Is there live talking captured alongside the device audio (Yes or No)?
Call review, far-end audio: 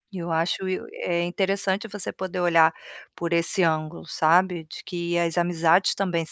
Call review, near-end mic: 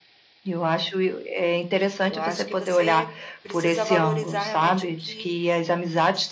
Yes